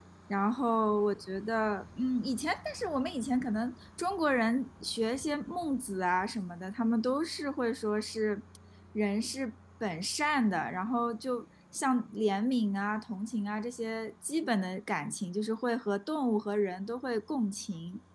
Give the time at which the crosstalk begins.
none

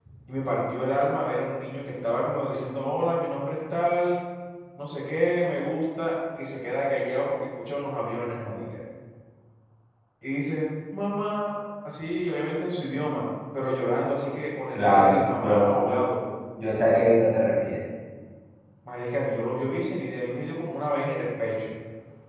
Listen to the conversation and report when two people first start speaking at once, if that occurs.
14.8 s

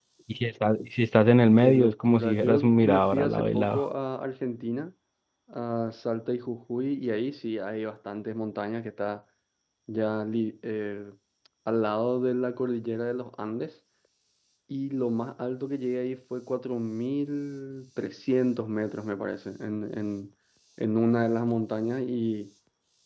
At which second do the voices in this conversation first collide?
1.6 s

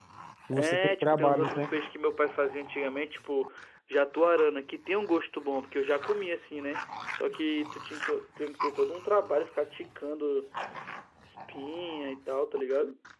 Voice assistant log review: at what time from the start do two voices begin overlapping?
0.5 s

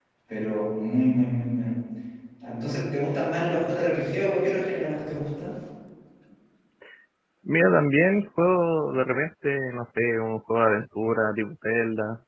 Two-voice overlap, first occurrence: none

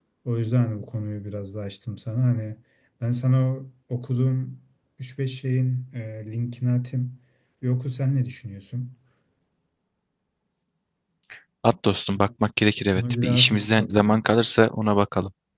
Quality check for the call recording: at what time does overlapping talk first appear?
13.0 s

